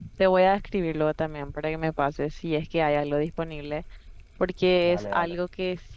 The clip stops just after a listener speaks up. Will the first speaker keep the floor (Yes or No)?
Yes